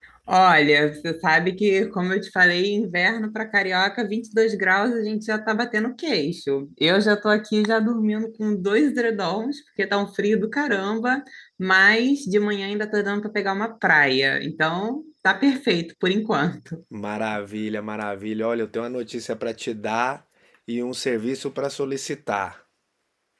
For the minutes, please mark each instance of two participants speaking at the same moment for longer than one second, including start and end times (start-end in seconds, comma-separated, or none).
none